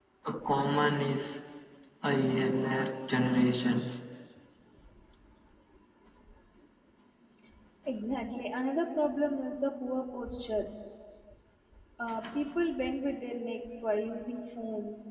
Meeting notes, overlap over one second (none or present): none